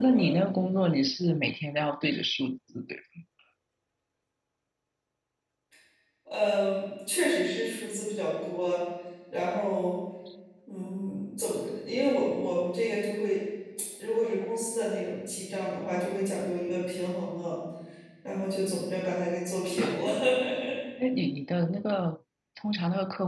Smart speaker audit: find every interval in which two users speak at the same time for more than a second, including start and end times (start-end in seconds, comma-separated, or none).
none